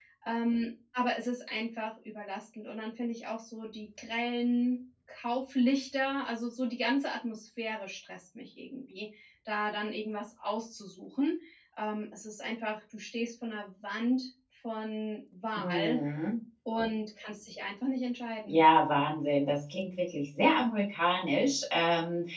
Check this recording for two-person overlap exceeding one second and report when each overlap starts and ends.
none

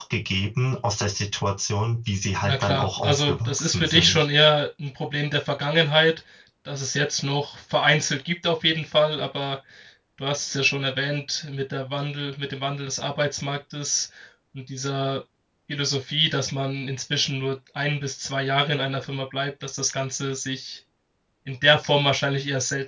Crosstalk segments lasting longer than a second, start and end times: 2.4-4.3

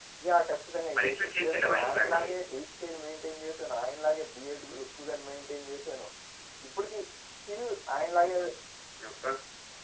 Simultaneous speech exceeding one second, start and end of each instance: 1.0-2.2

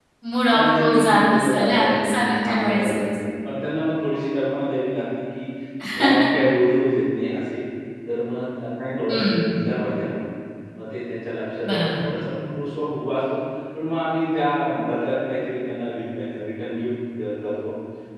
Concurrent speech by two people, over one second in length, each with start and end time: 0.5-3.0

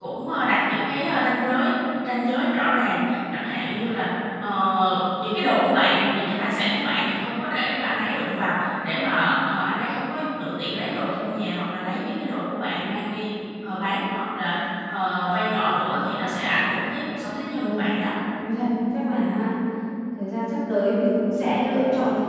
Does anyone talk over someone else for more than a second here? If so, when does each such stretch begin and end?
none

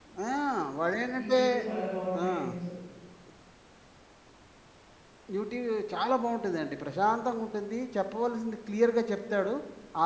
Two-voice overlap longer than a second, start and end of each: none

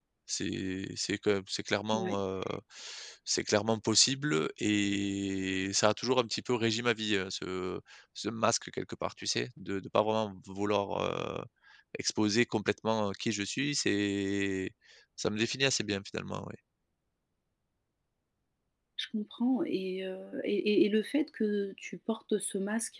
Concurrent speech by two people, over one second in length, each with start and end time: none

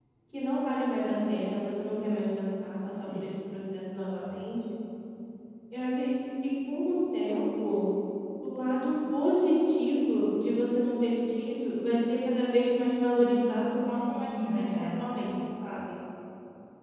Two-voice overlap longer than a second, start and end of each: 13.2-15.1

